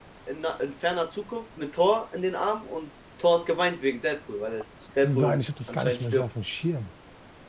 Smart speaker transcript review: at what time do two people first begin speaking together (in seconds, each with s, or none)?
4.8 s